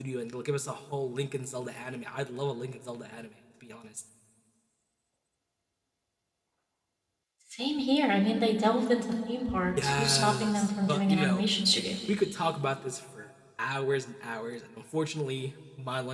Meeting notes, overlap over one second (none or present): present